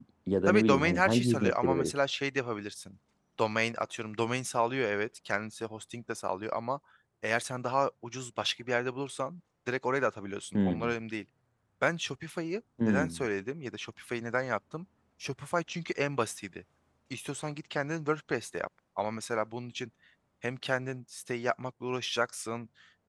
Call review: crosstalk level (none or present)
present